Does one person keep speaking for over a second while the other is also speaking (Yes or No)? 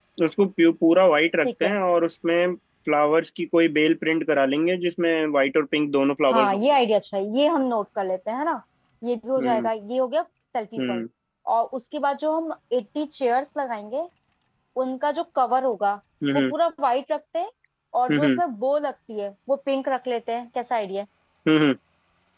No